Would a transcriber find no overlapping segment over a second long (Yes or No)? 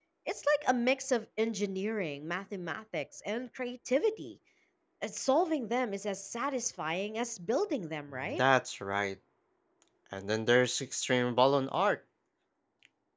Yes